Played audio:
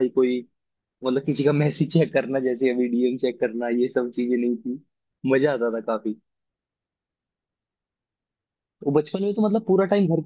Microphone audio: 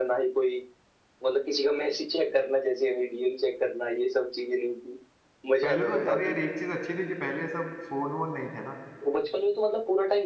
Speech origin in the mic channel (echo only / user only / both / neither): both